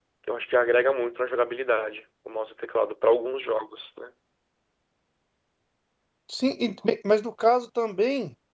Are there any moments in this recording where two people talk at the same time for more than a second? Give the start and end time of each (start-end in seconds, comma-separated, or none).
none